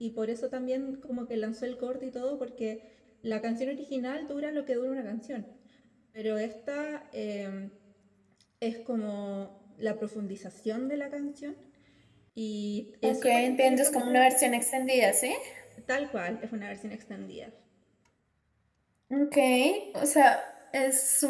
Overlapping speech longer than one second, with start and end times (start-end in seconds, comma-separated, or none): 13.0-14.2